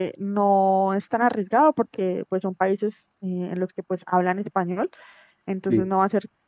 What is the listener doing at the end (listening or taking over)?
listening